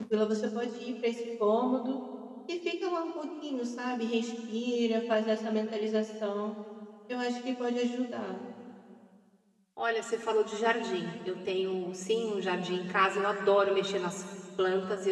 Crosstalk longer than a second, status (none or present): none